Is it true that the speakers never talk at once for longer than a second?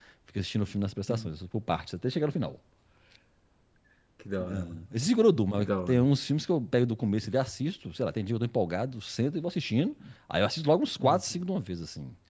Yes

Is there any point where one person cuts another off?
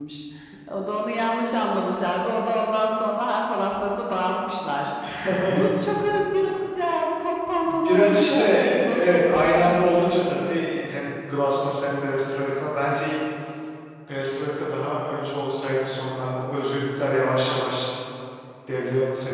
Yes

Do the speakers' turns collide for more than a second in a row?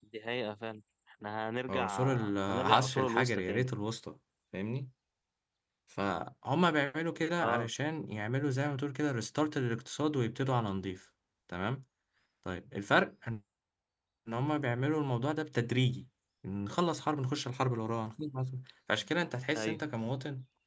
Yes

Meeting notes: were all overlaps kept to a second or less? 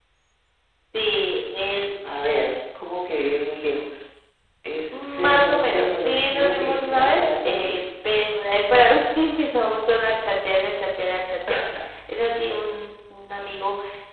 No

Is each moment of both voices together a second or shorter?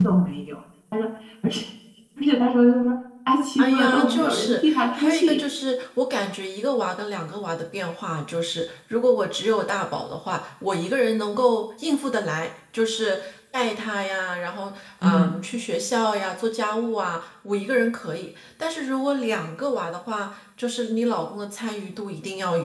No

